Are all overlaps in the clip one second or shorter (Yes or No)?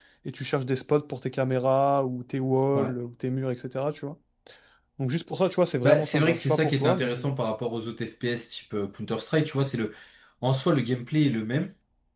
No